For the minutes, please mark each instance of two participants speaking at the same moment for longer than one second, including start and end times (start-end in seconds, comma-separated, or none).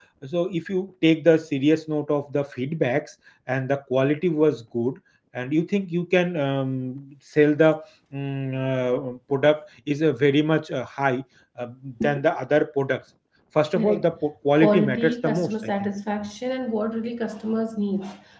14.6-15.9